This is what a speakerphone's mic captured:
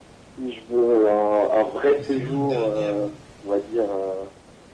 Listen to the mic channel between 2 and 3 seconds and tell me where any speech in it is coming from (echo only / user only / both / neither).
both